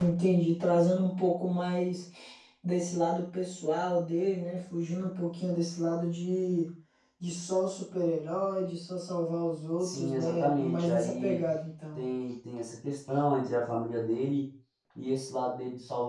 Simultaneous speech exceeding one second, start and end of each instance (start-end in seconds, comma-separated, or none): 9.8-11.4